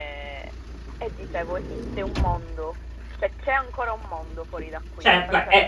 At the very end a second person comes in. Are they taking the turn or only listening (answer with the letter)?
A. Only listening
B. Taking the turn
B